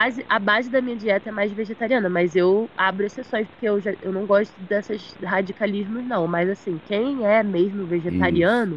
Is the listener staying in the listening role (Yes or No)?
Yes